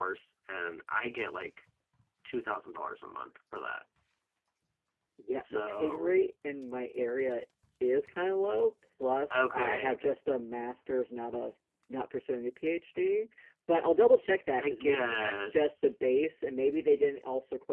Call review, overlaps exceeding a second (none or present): present